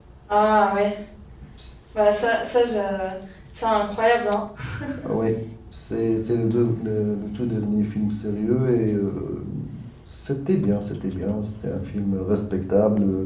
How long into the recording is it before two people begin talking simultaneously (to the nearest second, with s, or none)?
none